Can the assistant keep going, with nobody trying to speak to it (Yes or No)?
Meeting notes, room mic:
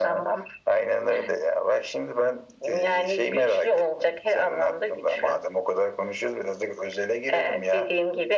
Yes